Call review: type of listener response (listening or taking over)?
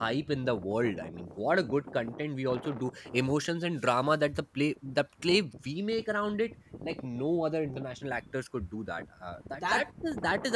listening